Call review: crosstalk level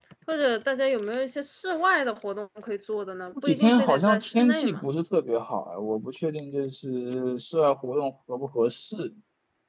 present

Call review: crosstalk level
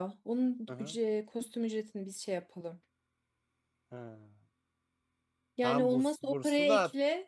present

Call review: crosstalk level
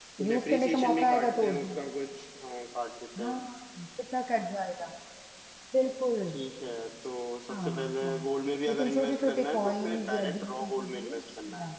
present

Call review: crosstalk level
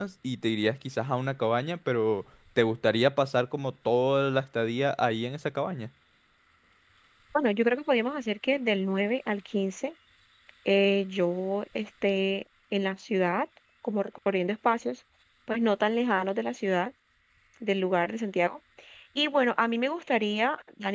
none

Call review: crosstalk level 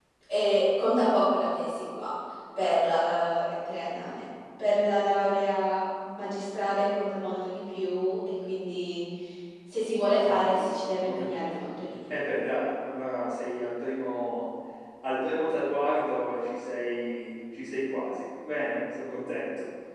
present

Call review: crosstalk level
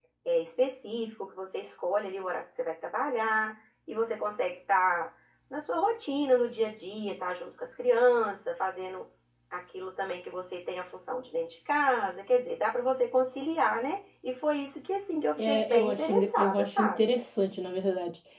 present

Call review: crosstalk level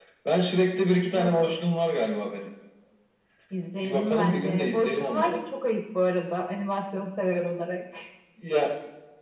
present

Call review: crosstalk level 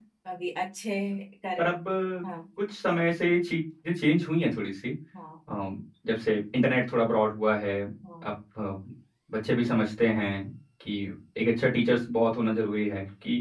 none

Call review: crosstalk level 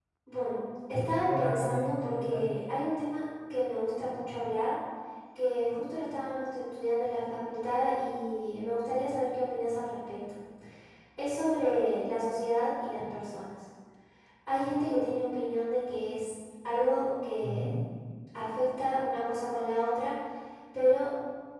present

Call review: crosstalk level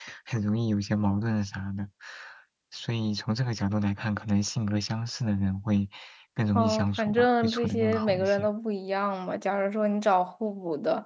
present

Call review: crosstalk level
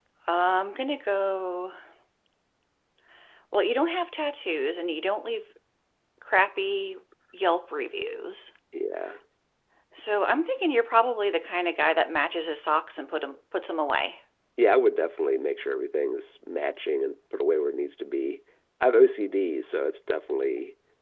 none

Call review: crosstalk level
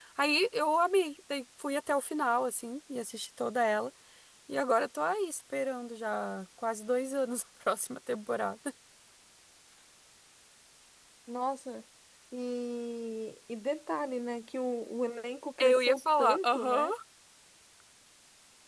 present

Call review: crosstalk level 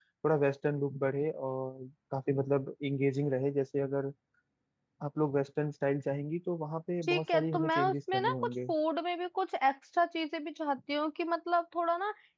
present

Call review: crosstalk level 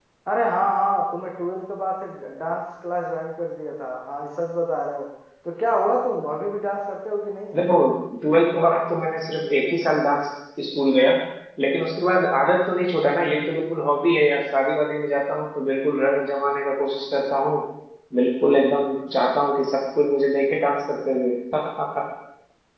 none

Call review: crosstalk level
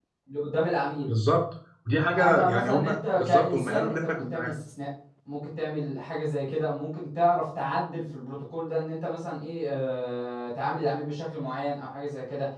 present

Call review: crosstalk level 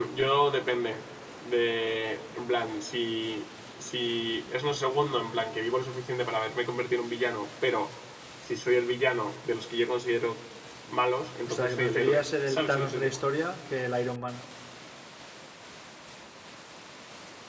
present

